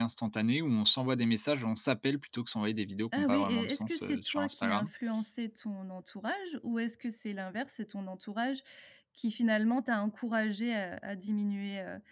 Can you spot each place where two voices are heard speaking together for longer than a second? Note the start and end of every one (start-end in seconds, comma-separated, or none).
3.2-4.9